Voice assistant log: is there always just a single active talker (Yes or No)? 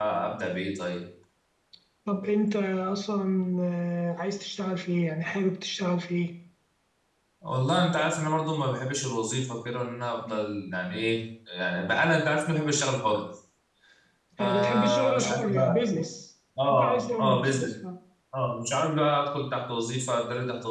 No